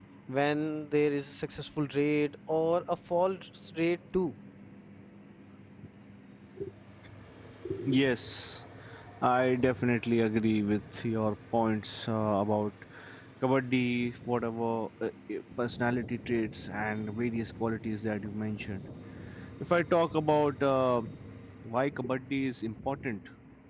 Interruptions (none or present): none